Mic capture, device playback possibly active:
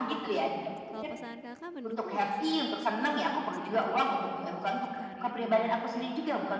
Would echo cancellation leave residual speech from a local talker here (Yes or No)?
Yes